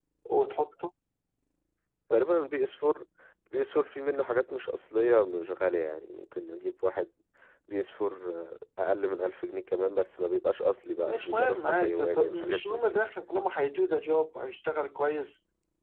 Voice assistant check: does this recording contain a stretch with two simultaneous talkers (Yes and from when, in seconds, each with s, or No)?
Yes, from 11.1 s